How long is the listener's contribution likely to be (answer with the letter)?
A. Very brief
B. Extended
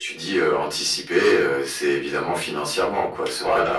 A